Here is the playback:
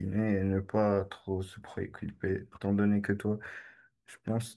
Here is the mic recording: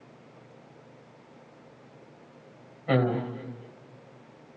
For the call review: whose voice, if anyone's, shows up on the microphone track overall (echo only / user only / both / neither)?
user only